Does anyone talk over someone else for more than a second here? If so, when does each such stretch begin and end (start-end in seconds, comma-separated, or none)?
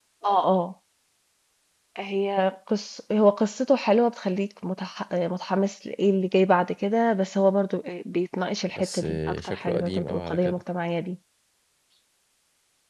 8.7-10.6